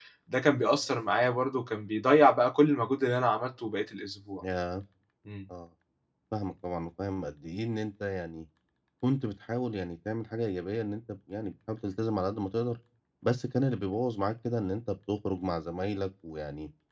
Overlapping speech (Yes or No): No